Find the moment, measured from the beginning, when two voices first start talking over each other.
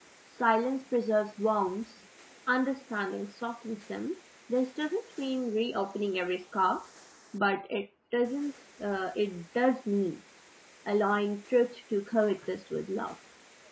none

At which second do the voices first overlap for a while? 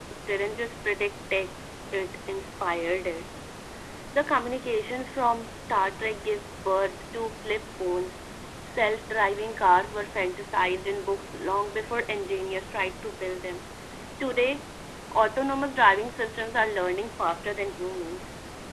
none

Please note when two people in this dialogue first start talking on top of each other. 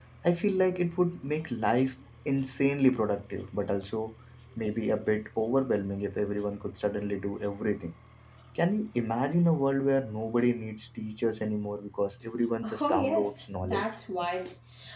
13 s

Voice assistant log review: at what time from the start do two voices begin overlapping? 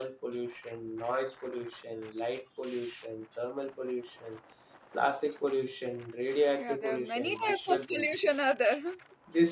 7 s

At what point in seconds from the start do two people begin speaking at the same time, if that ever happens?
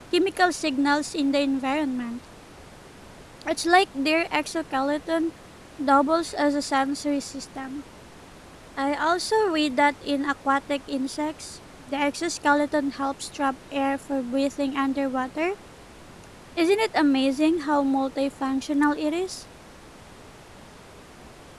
none

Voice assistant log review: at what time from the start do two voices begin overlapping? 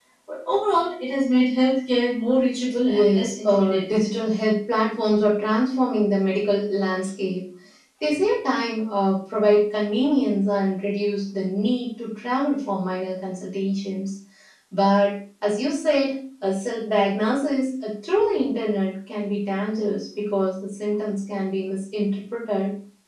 3 s

